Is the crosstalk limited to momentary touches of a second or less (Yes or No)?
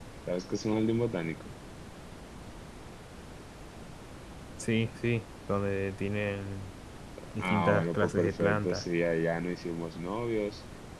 No